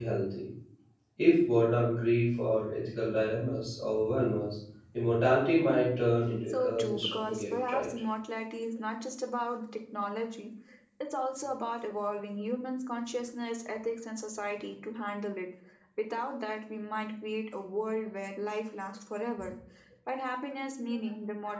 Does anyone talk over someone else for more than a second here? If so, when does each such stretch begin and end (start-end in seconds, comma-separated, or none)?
6.5-7.9